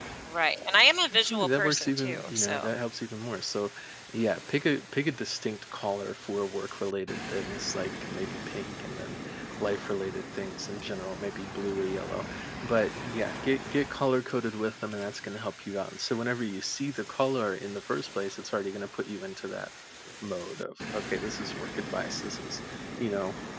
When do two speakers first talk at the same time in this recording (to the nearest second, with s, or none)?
1 s